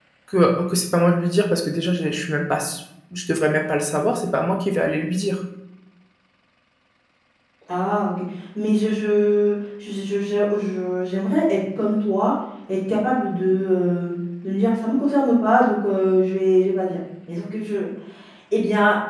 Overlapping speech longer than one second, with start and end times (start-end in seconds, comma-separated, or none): none